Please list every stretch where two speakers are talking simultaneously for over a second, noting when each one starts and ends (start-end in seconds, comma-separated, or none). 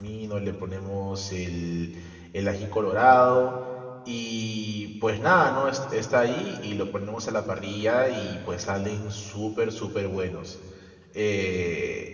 none